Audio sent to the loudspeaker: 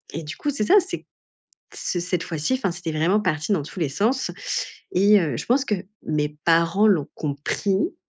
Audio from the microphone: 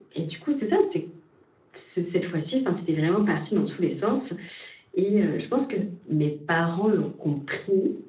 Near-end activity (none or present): none